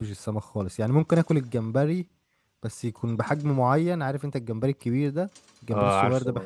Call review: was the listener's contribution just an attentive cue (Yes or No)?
Yes